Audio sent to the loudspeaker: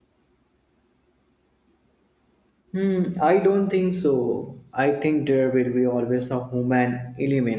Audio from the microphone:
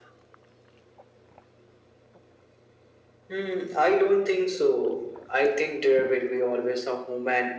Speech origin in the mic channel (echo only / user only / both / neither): echo only